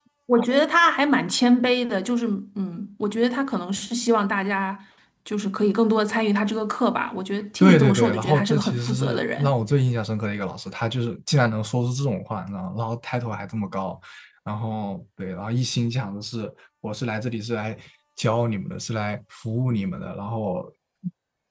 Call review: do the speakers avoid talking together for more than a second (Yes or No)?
No